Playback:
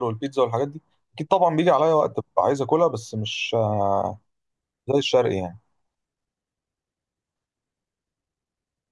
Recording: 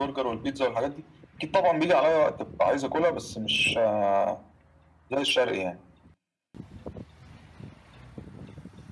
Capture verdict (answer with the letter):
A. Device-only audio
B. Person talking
A